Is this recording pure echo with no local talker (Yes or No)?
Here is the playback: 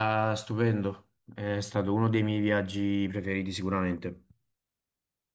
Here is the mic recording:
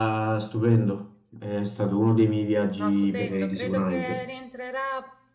No